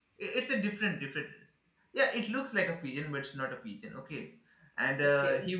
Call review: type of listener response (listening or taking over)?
listening